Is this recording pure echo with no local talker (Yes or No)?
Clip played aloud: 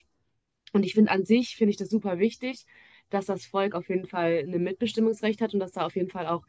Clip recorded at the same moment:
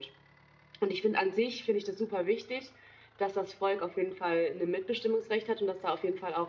Yes